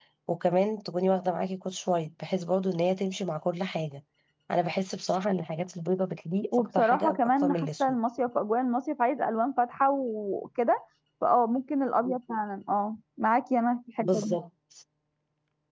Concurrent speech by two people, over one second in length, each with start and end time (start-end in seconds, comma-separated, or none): 6.5-8.0